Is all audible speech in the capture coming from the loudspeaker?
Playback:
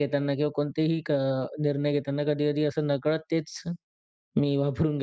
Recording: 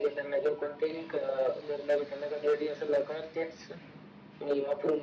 Yes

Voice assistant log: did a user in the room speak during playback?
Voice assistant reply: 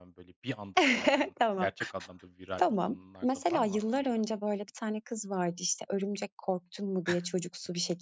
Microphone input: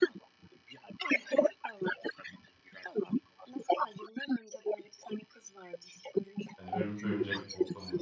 Yes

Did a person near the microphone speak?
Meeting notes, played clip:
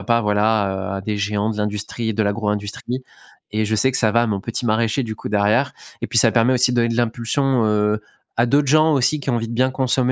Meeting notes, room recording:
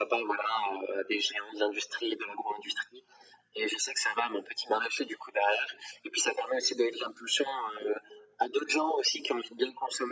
No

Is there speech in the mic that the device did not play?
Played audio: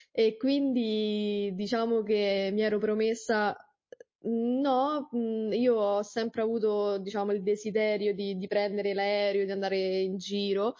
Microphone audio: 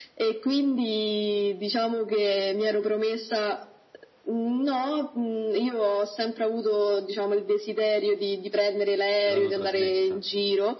Yes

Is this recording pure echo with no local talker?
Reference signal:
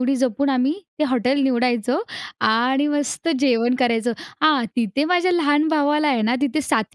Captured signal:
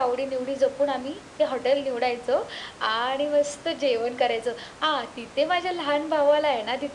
Yes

